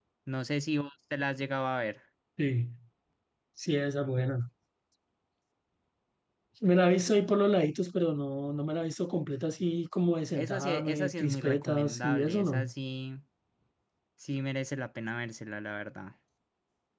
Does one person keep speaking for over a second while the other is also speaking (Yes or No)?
Yes